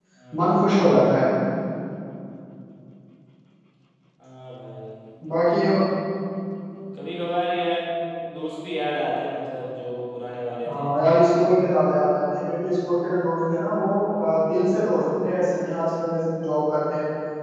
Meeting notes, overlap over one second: none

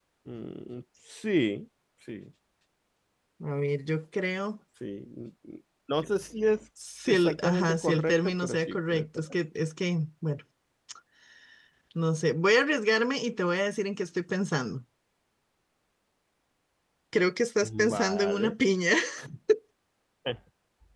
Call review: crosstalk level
present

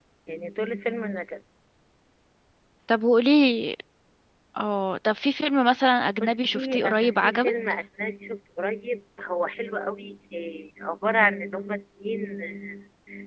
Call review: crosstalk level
present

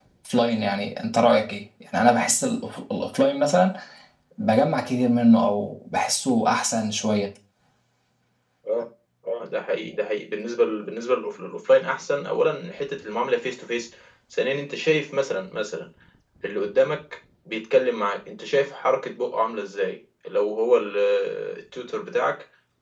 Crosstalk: none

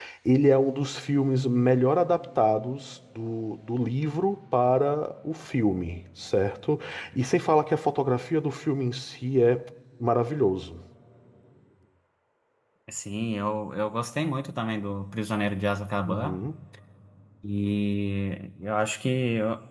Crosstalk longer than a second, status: none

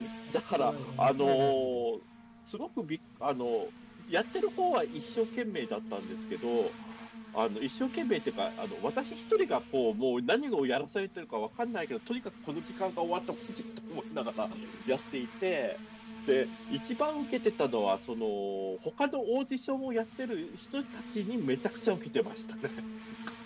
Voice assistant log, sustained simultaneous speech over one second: present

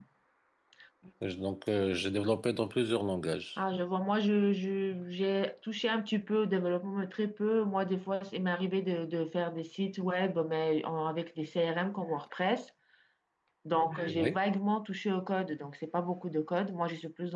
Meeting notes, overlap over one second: none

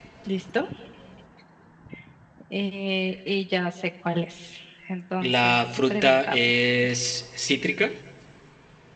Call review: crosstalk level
present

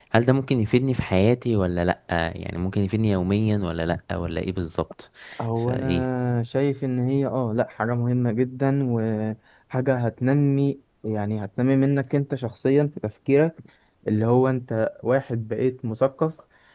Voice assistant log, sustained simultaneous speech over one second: none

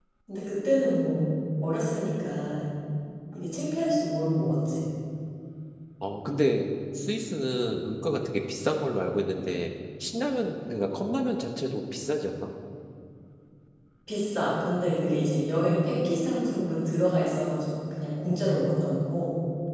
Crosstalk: none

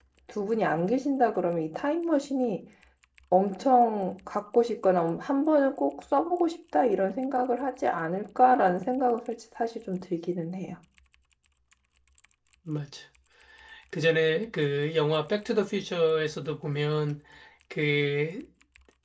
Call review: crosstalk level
none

